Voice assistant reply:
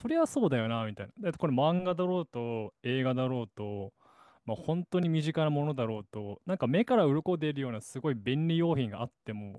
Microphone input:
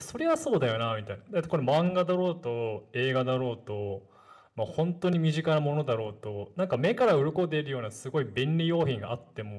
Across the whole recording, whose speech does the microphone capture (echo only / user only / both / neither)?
echo only